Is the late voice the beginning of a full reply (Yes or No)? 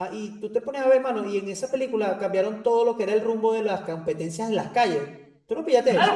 Yes